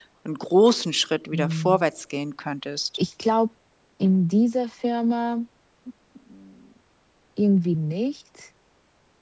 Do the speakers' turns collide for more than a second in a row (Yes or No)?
No